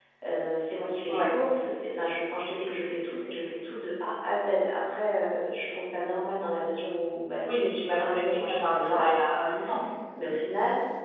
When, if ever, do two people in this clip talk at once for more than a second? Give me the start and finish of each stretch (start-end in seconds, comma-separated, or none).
7.5-9.1